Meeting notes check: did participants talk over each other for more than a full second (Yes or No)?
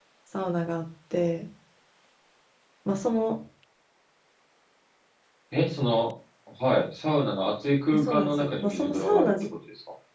Yes